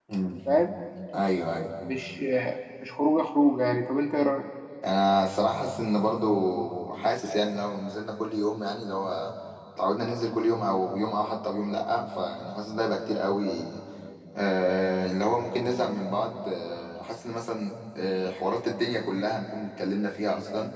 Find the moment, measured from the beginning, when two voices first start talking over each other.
none

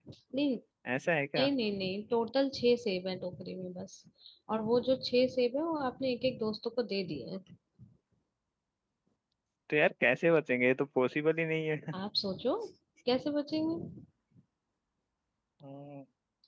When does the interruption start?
none

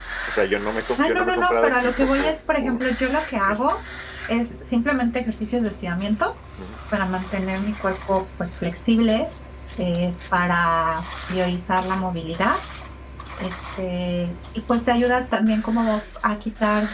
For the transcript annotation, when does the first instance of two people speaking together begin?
1 s

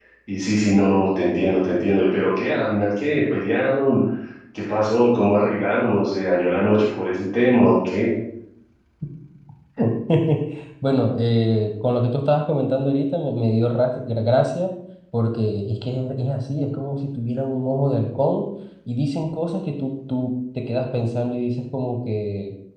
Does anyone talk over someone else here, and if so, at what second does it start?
none

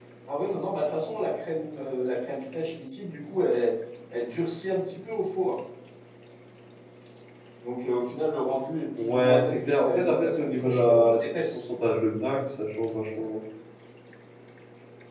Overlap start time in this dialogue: 9 s

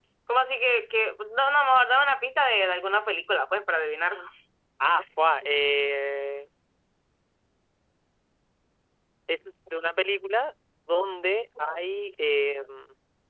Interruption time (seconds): none

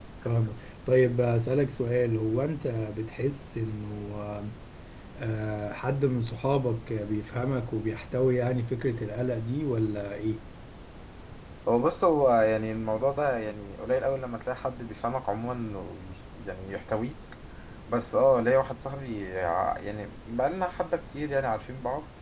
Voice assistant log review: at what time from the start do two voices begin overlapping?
none

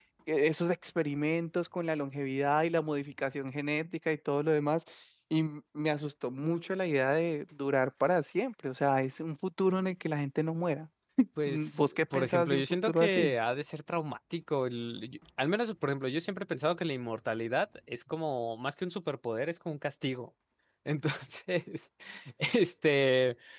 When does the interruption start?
11 s

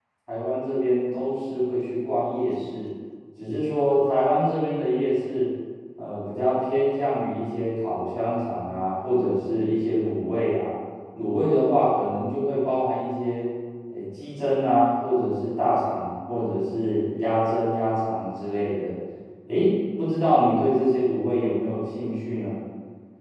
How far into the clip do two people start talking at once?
none

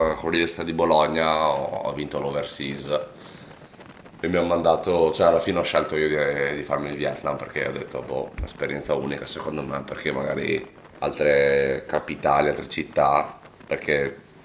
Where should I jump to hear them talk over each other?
none

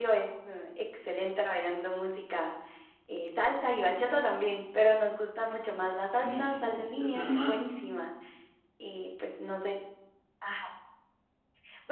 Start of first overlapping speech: 6 s

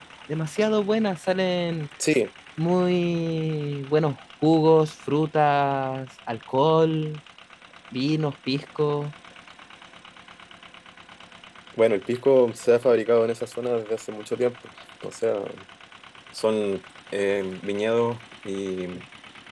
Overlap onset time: none

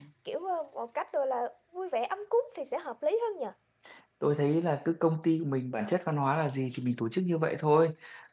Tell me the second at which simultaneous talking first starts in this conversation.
none

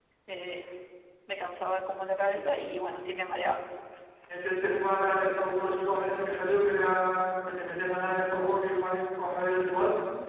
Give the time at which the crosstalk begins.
none

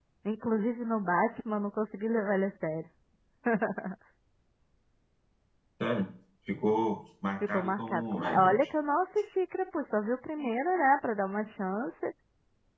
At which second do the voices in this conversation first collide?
7 s

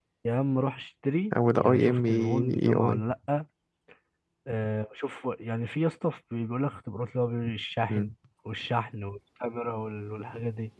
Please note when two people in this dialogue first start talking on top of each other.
2 s

